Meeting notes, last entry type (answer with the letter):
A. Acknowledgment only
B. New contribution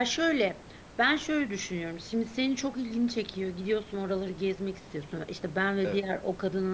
A